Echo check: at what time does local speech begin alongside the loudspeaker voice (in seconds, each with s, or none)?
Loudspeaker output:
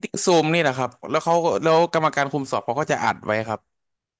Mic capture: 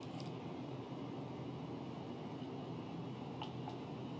none